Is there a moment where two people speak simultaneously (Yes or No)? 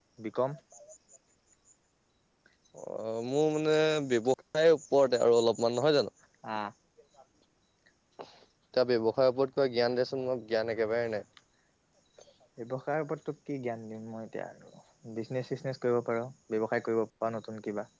No